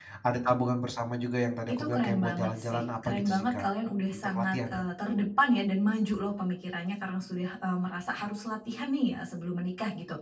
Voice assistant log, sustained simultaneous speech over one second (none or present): present